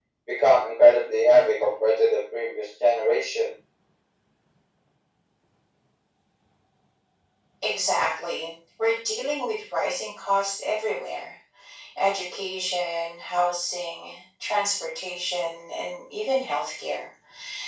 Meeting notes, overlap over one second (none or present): none